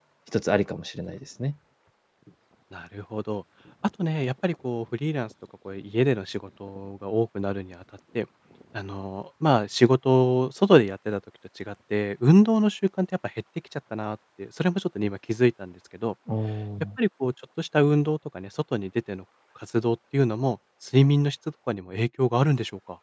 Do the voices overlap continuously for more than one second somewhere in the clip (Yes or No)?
No